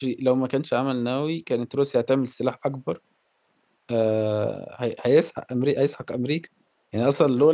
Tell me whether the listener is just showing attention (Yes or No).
Yes